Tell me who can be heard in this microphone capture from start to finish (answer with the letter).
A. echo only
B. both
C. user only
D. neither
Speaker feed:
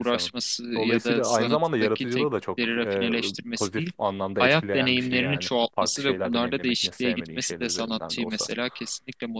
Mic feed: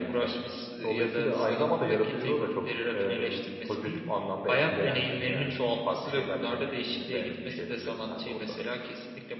A